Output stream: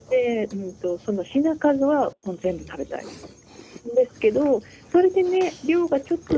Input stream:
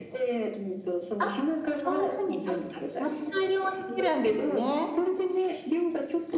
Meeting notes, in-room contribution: present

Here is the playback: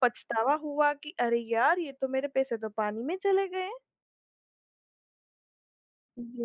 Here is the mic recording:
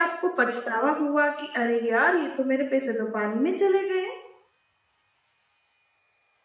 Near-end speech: none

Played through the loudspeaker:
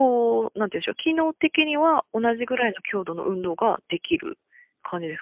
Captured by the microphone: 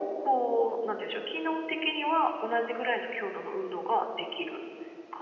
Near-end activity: none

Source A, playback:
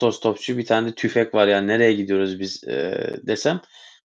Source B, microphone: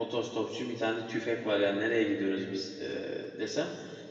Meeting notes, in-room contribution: none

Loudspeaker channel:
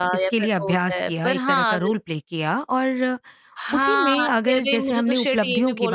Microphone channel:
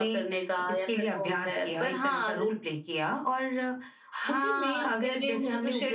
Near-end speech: none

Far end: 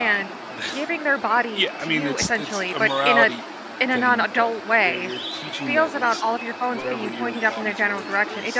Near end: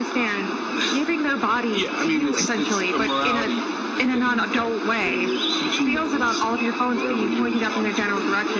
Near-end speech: none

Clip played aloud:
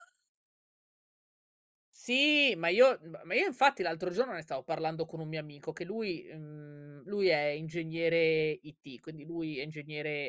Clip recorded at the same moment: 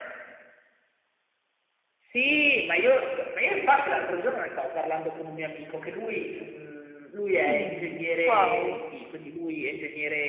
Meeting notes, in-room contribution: present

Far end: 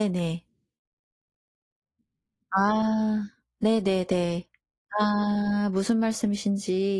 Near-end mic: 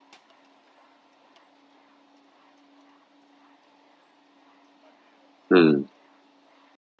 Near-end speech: present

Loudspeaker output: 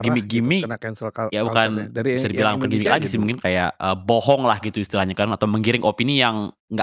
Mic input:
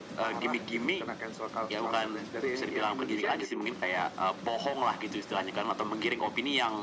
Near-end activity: none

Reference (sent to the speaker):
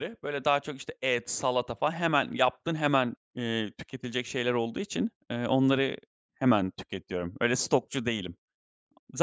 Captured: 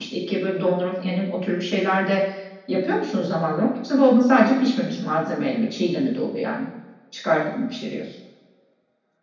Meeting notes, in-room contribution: present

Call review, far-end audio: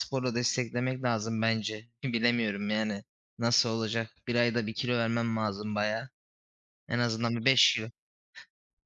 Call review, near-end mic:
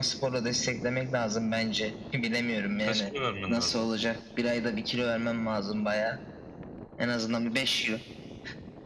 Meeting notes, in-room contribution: present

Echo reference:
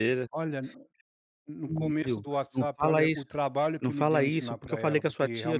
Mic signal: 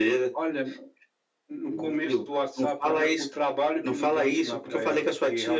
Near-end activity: none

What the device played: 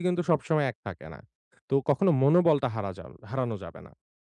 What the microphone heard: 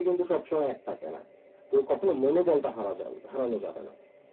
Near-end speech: none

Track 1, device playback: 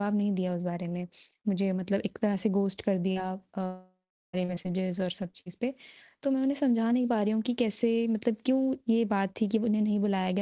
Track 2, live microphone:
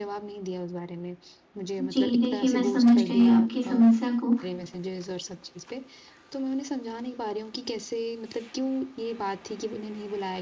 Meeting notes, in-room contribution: present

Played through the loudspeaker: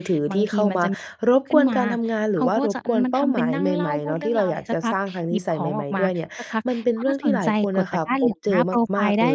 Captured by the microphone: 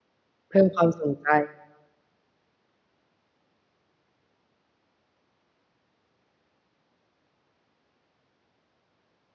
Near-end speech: present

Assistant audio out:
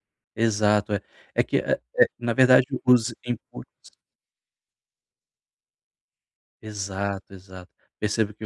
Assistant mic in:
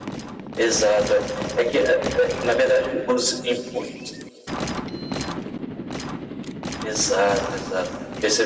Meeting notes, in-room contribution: none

